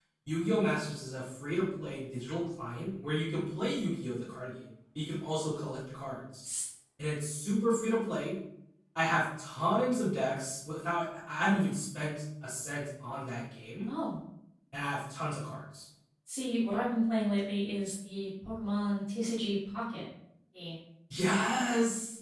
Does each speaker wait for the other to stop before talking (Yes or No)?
Yes